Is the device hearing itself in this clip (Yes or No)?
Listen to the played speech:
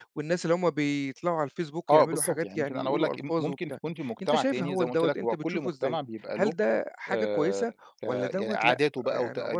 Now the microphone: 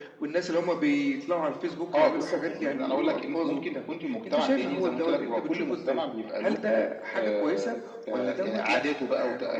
Yes